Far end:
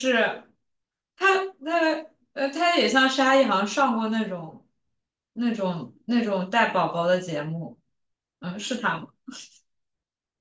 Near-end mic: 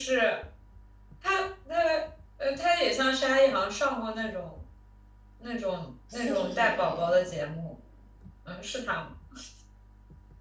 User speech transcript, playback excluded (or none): 四十岁左右，